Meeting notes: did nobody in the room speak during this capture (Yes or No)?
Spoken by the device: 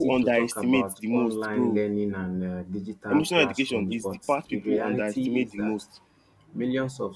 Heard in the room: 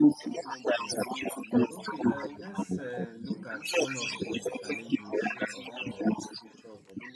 No